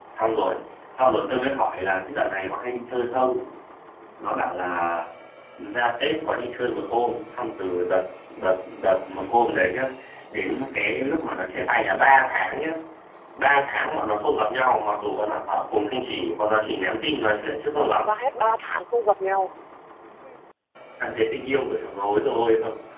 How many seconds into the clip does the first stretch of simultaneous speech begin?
none

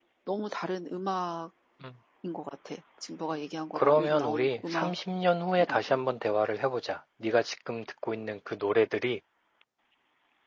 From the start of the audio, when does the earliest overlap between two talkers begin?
4 s

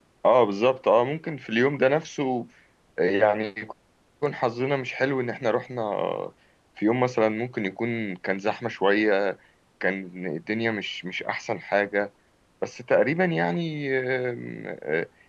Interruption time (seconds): none

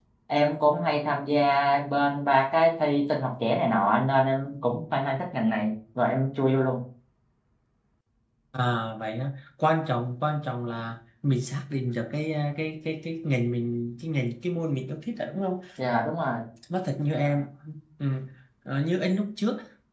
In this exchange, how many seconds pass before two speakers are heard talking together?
none

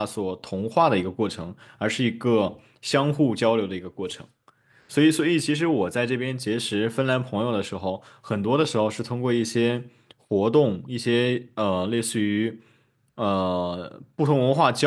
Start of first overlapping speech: none

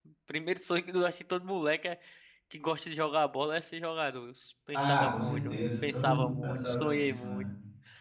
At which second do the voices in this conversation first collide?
5 s

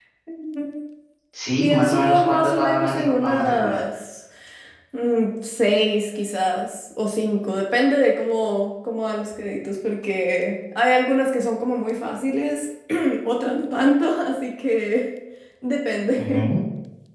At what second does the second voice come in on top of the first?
2 s

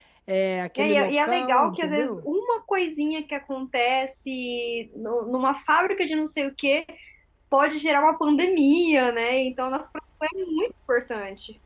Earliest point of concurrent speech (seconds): 1 s

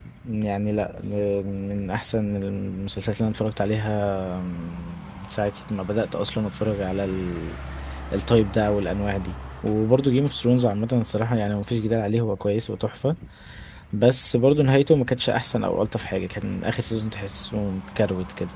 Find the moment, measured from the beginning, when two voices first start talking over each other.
none

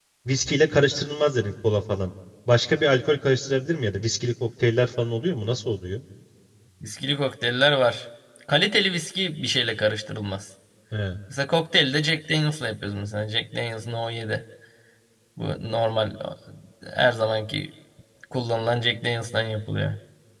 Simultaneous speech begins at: none

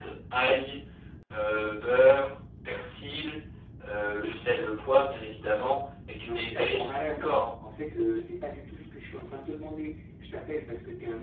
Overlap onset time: 6 s

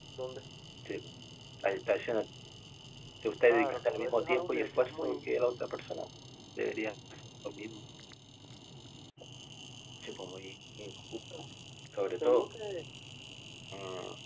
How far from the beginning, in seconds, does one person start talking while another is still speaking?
3 s

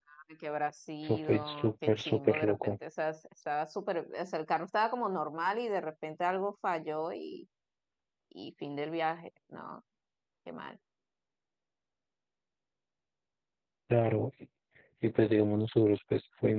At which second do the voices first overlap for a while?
1 s

